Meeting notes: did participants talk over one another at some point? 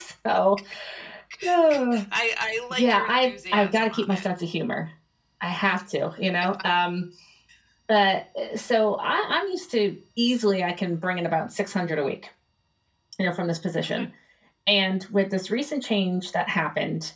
Yes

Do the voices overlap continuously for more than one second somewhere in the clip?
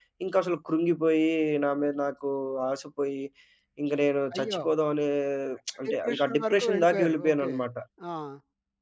Yes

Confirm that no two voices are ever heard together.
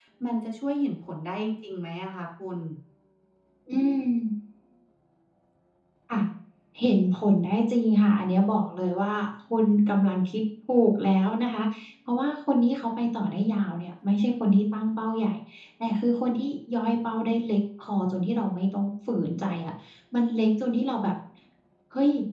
Yes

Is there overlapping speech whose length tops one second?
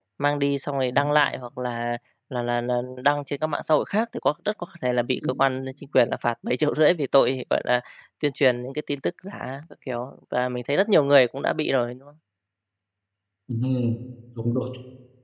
No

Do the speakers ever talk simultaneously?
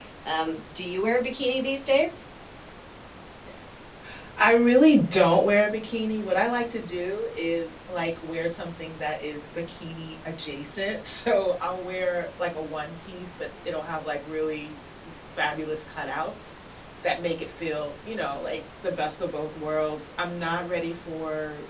No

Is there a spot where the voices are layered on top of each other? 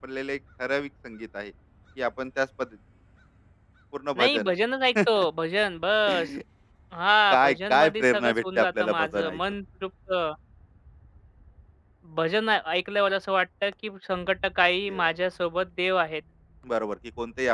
Yes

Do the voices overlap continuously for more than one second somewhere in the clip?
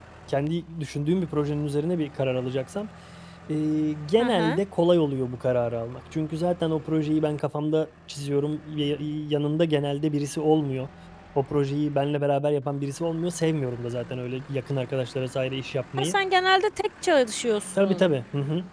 No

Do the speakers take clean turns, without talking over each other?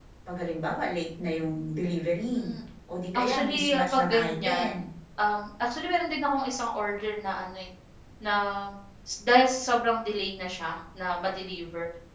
No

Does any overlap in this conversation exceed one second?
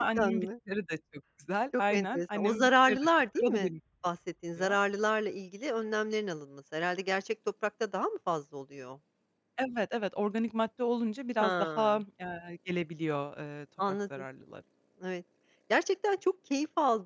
Yes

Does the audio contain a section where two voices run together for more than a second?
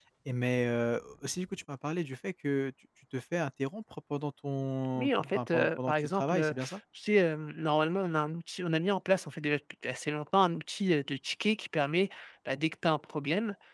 Yes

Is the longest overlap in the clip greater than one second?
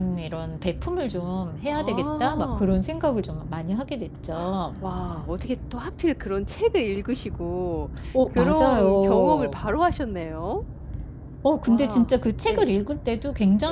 Yes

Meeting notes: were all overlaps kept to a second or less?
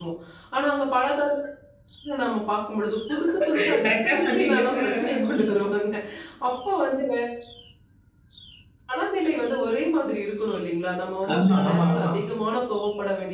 No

